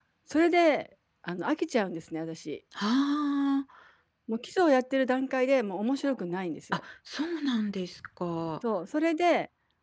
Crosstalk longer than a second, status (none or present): none